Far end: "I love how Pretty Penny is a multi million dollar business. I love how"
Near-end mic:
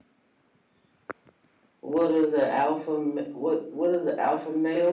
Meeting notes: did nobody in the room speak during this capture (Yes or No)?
No